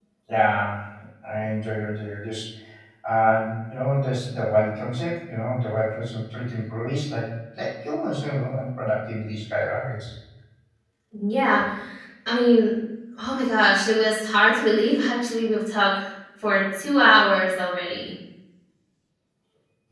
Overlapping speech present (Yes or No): No